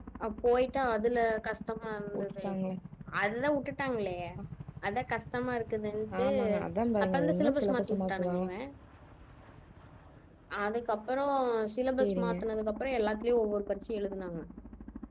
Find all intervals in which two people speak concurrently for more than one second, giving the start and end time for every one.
7.0-8.3

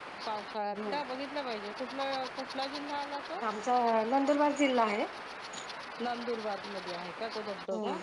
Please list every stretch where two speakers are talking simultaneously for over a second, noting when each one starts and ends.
none

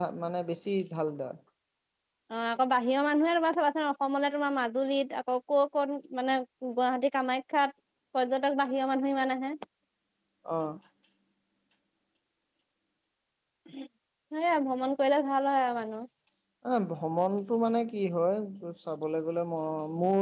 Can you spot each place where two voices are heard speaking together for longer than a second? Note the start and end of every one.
none

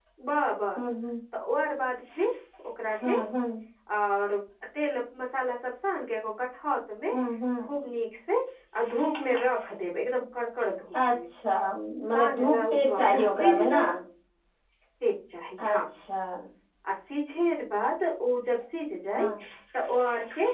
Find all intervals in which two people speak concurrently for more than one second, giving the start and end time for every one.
12.1-13.7

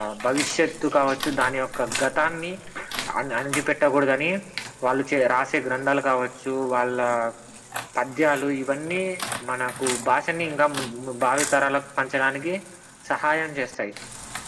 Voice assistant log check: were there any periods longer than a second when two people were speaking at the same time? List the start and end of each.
none

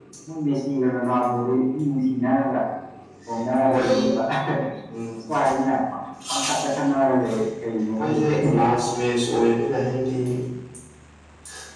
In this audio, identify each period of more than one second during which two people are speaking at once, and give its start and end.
none

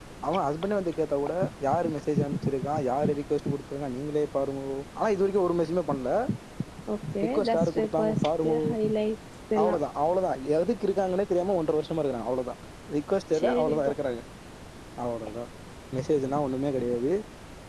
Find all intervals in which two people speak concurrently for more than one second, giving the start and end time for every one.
7.3-8.6

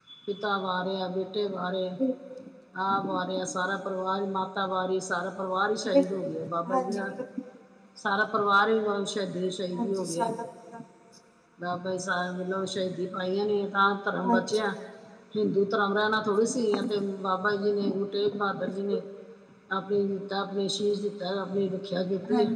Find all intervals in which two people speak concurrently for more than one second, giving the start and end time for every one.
none

